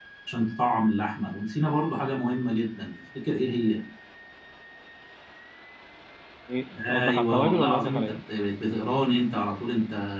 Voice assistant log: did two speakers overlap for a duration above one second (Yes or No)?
Yes